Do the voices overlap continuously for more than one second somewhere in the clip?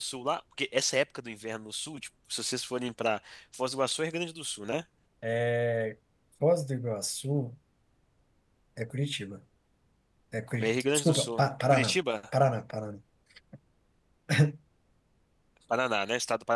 Yes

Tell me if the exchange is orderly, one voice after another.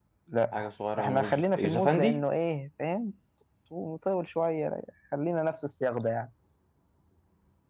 No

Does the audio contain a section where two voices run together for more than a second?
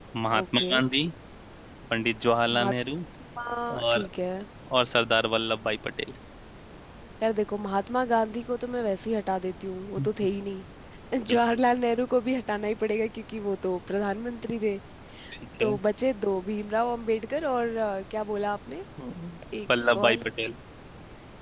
No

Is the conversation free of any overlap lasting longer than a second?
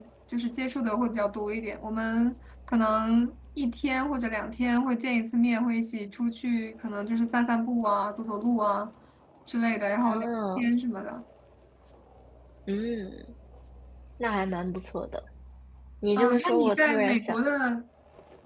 No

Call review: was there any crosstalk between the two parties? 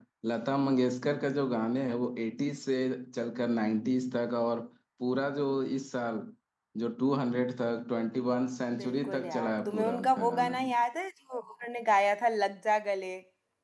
Yes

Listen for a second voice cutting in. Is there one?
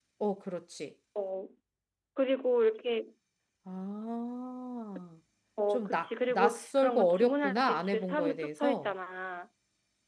Yes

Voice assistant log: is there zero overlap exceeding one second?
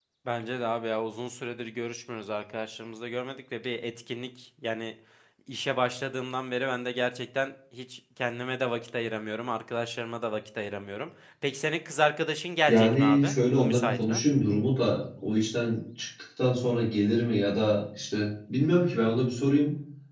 No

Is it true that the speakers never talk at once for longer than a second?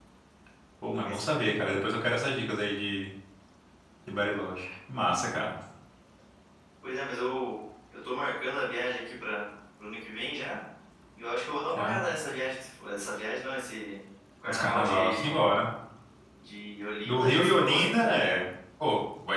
No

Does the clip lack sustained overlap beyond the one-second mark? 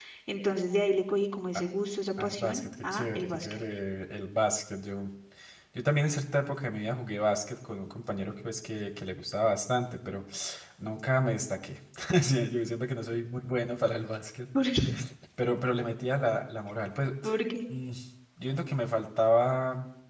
No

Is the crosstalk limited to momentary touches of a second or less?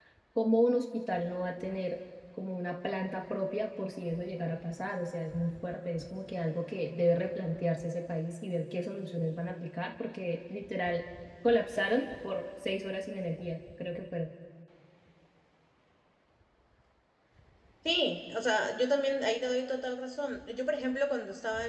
Yes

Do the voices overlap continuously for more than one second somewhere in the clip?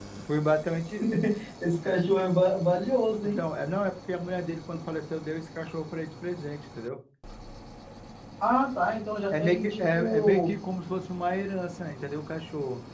Yes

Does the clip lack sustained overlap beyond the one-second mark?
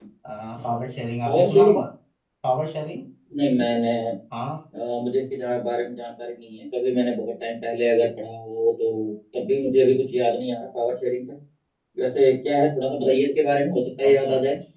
Yes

